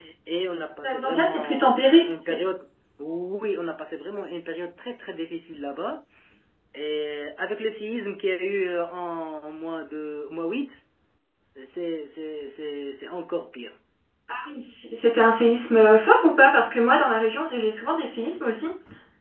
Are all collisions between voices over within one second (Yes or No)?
No